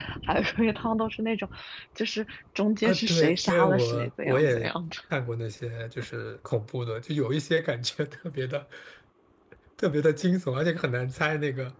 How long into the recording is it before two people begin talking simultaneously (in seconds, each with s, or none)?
2.8 s